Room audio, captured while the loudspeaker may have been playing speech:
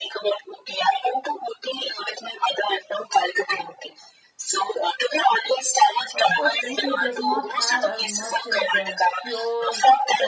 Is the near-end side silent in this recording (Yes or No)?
No